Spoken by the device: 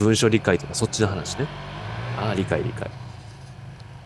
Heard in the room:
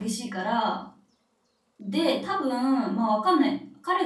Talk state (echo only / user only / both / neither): user only